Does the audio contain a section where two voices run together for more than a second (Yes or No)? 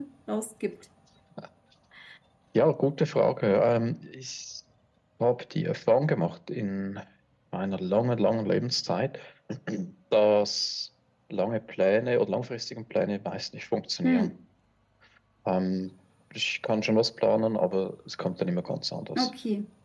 No